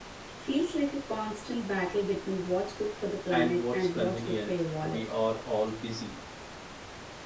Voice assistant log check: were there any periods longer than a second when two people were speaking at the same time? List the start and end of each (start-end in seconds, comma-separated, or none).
3.3-5.0